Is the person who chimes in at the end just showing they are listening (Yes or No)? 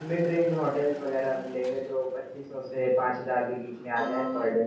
No